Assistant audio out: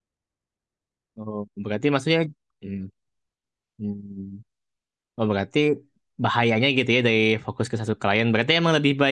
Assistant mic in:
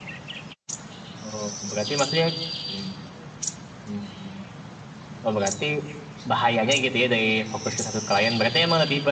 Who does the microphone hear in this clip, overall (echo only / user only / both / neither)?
echo only